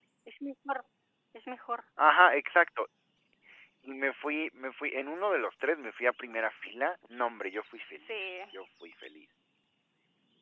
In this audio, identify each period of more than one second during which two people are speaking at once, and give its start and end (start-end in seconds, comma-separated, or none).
none